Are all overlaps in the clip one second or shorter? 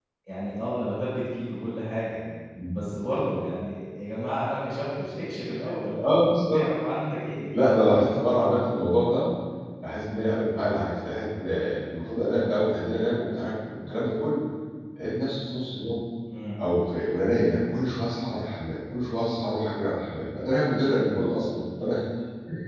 Yes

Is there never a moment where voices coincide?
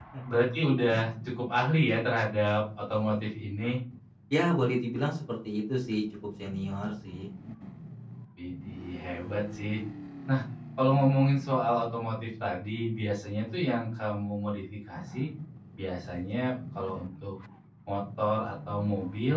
Yes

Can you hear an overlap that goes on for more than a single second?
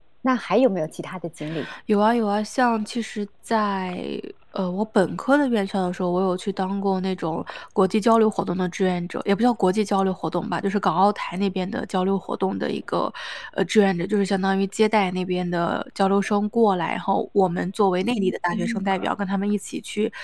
No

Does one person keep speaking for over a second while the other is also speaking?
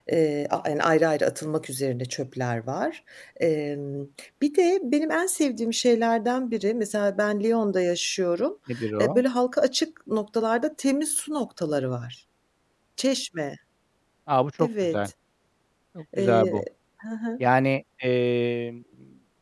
No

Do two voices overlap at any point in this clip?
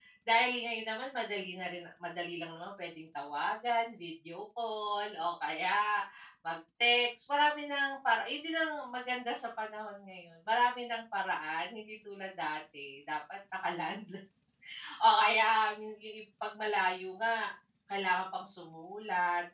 No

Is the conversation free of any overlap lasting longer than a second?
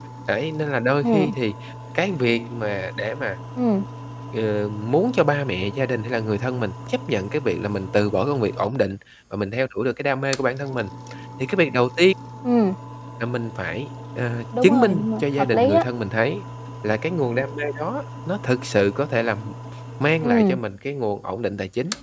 No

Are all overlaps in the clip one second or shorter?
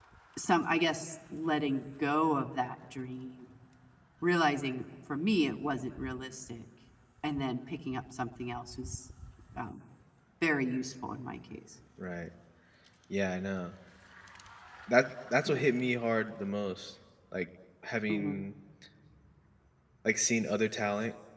Yes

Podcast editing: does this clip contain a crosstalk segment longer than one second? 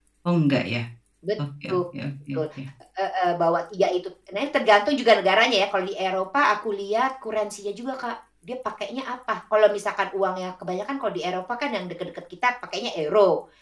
No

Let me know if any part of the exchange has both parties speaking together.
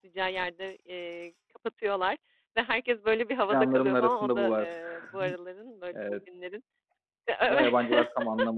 Yes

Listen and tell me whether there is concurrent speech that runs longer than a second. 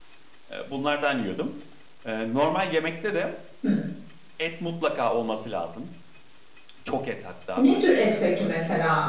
Yes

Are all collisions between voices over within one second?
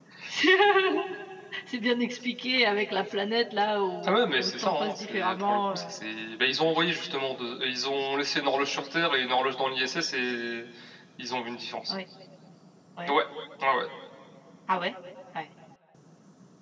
No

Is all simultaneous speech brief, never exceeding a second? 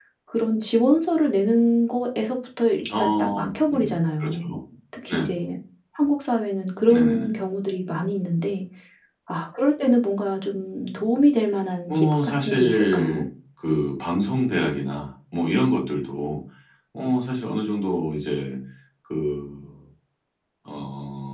No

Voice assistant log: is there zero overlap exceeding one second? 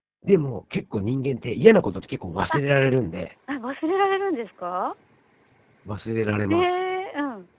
Yes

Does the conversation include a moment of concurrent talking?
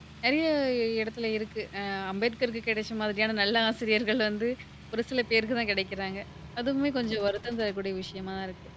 No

